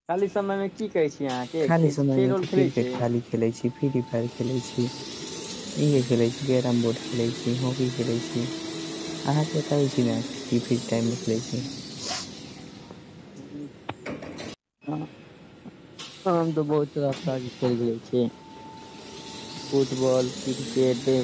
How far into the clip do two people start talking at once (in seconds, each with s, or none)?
1.6 s